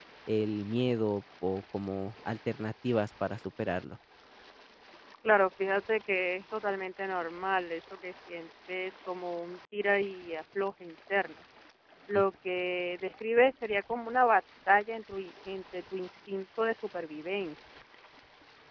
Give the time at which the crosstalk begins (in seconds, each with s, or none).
none